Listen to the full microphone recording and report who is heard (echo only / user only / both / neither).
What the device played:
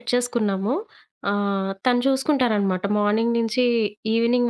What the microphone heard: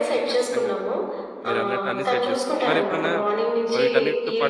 both